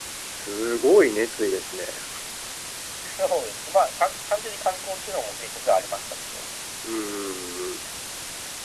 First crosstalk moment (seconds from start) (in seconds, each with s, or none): none